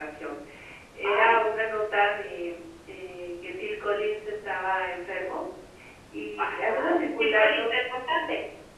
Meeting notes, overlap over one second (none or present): present